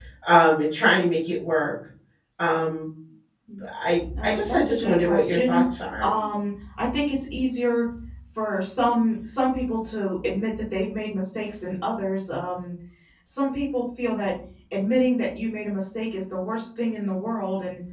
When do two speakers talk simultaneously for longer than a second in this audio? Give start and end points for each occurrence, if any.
4.2-6.1

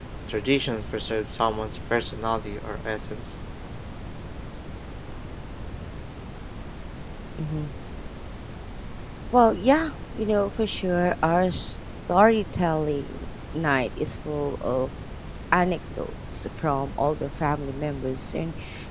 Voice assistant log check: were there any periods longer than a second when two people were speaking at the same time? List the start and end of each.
none

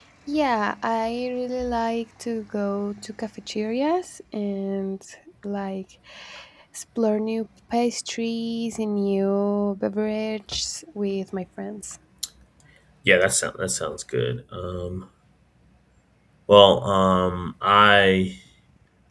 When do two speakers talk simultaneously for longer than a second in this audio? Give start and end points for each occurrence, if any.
none

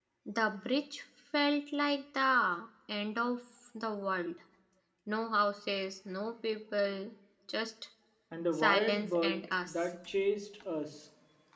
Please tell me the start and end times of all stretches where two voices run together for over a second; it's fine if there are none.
8.5-9.9

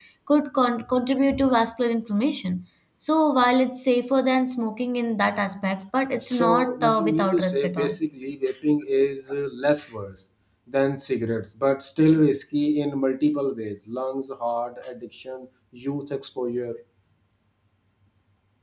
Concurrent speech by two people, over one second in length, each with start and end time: 6.2-8.0

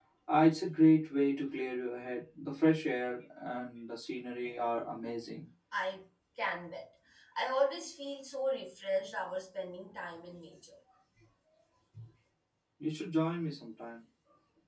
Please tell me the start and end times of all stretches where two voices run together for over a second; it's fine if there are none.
none

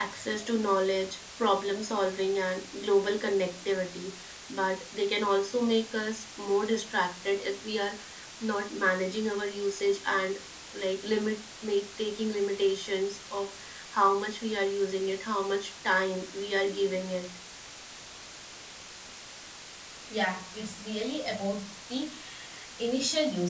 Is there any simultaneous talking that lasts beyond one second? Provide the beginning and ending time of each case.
none

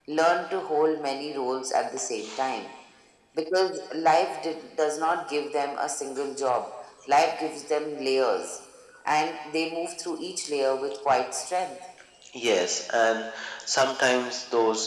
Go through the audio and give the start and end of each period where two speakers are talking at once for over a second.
none

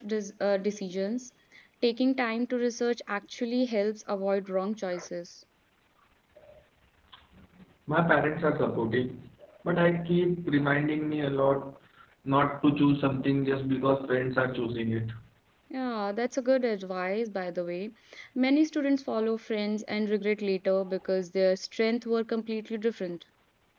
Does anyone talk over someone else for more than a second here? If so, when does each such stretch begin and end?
none

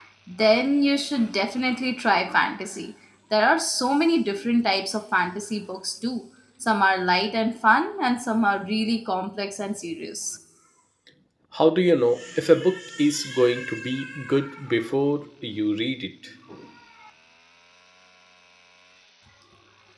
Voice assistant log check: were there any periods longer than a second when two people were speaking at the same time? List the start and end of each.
none

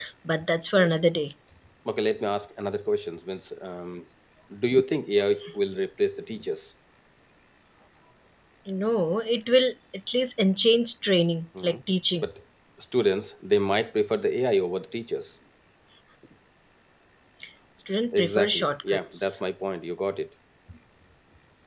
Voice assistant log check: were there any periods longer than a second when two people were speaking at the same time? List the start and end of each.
18.1-19.4

